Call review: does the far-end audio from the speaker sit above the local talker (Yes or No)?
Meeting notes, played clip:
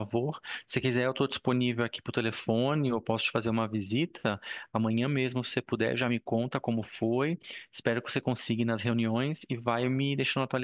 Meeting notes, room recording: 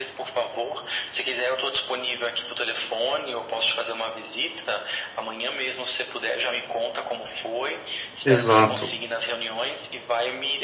No